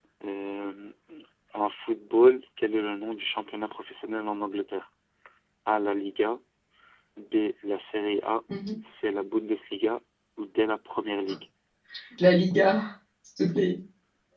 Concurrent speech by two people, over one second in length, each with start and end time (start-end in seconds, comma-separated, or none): none